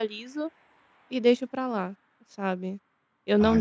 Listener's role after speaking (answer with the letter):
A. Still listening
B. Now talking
A